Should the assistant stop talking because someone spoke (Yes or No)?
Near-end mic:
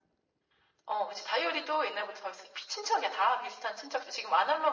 No